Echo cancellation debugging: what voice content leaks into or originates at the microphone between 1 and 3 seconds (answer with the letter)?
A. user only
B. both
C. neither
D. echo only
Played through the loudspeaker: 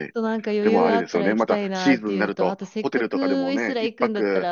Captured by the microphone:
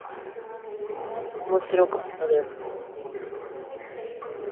B